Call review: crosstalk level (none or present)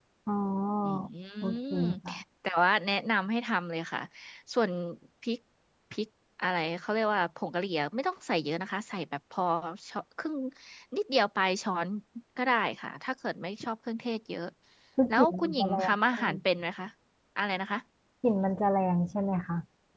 present